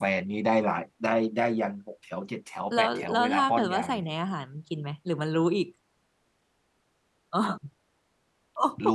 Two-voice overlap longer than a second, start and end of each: 2.7-4.0

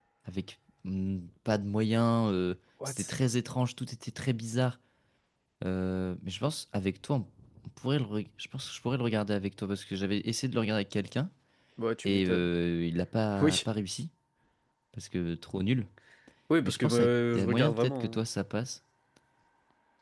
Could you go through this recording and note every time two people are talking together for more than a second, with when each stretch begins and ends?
16.6-18.2

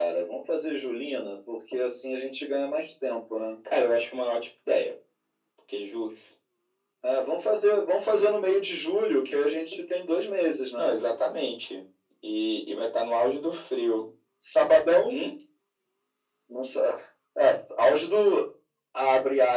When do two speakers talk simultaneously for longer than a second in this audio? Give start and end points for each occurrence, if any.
none

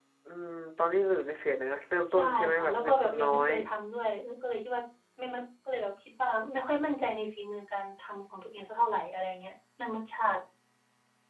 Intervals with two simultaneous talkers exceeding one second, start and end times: 2.1-3.5

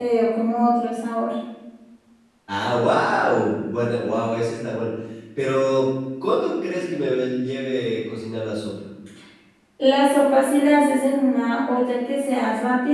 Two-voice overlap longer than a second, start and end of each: none

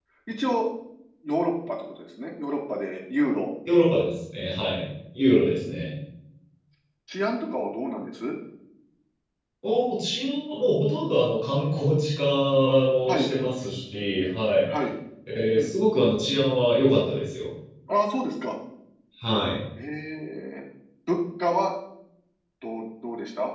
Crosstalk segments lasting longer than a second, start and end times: none

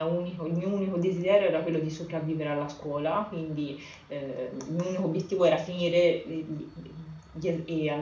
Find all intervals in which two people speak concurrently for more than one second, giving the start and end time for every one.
none

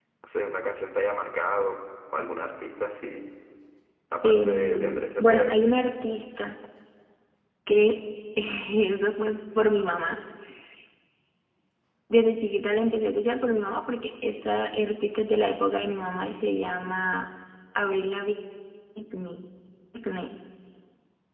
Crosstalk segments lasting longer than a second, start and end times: 4.2-5.6

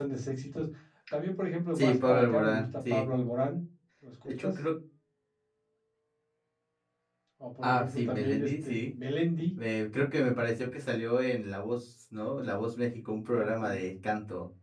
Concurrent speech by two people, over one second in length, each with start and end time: 1.7-3.1, 7.6-8.9

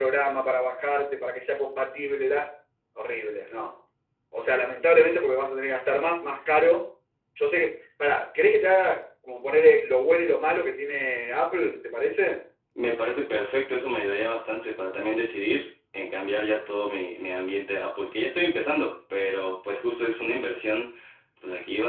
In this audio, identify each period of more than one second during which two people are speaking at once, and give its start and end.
none

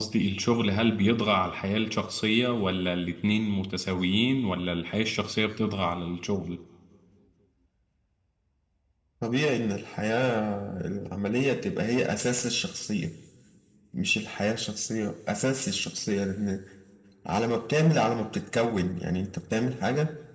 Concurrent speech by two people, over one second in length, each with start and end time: none

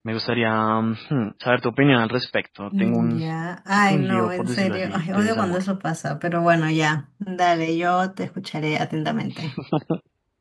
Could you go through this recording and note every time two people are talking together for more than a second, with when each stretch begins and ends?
3.7-5.6

